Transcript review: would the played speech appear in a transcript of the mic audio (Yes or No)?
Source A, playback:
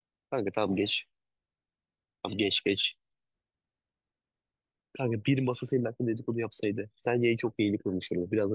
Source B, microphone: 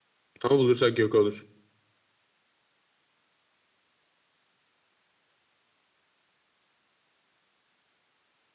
No